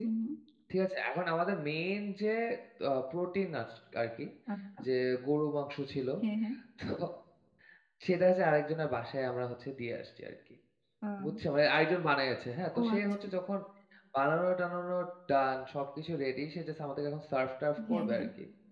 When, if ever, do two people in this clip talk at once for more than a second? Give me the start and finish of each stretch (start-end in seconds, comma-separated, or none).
none